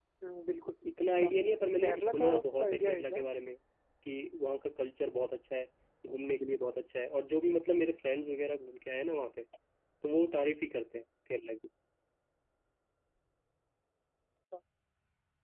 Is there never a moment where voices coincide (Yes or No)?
No